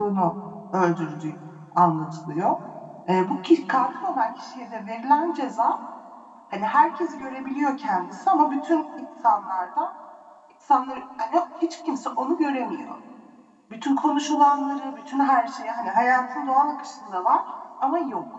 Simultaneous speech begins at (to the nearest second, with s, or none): none